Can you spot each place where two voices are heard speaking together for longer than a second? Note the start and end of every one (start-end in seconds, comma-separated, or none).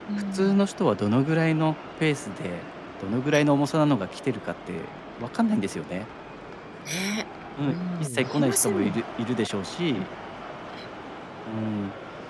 7.6-9.0